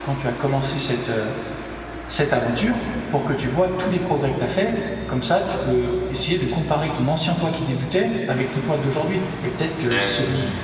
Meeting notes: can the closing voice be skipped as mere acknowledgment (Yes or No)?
Yes